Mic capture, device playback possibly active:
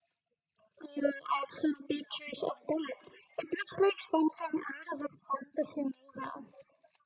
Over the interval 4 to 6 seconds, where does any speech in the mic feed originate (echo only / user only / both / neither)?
echo only